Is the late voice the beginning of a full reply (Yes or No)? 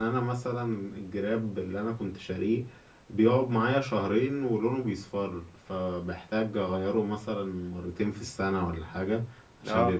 No